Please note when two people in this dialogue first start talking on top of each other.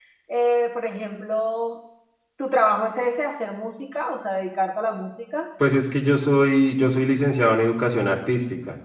none

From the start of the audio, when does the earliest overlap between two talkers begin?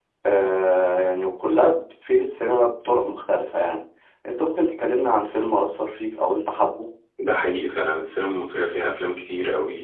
none

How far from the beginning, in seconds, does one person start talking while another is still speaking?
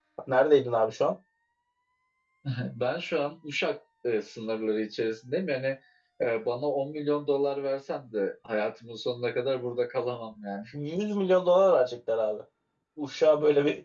none

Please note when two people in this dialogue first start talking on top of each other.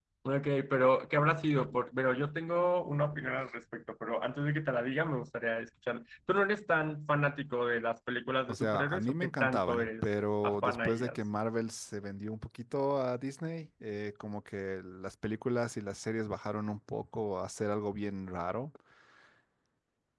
8.5 s

